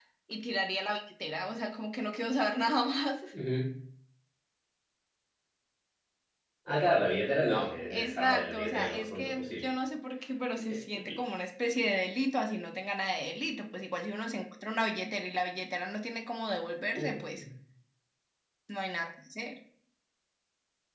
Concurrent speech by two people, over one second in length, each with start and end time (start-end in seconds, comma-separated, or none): 7.9-9.7